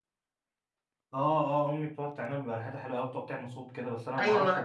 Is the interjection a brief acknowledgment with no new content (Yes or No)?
No